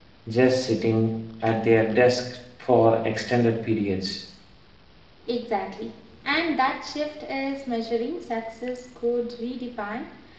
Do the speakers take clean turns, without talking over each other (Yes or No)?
Yes